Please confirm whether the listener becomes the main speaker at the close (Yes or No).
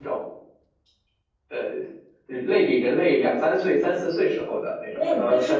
Yes